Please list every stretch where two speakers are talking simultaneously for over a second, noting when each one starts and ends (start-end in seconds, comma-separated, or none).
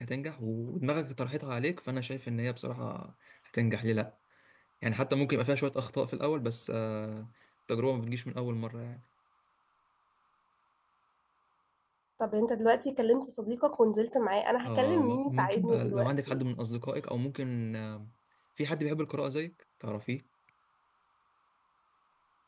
14.6-16.4